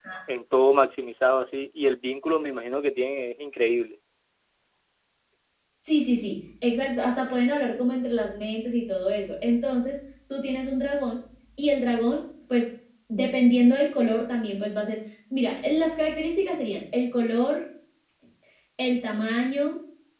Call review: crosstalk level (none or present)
none